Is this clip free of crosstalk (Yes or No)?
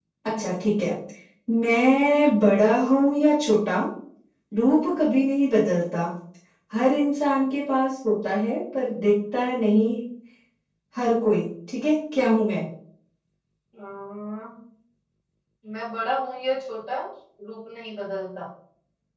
Yes